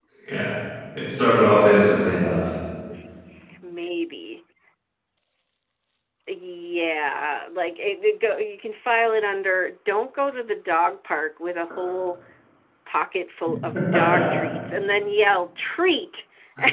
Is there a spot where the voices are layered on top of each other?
No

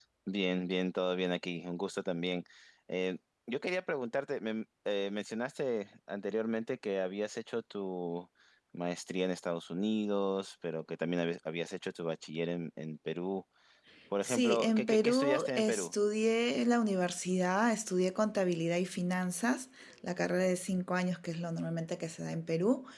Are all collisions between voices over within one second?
No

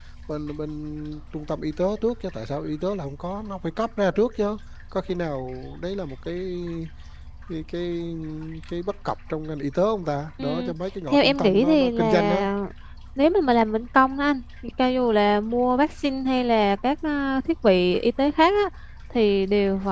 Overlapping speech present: Yes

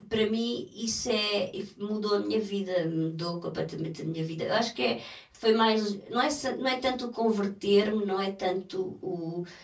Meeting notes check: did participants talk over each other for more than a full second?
No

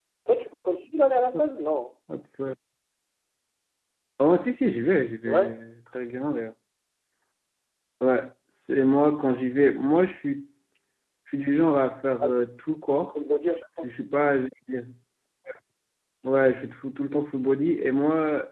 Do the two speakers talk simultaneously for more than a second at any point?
No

